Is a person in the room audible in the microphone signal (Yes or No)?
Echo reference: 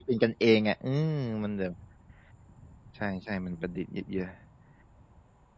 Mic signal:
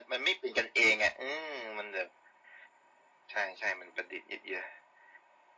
No